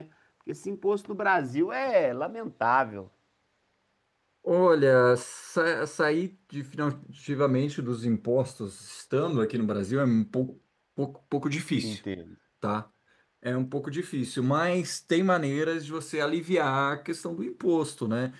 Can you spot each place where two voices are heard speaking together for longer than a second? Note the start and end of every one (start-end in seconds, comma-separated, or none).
none